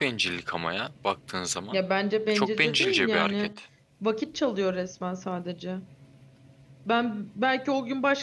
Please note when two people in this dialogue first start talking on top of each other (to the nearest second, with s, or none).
2 s